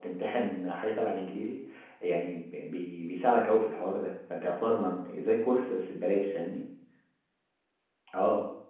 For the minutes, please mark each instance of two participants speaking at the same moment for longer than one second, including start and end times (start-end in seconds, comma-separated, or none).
none